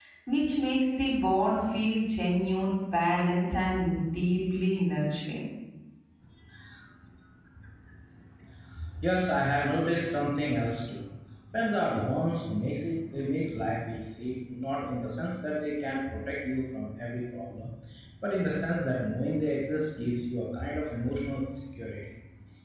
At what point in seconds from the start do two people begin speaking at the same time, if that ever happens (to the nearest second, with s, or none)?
none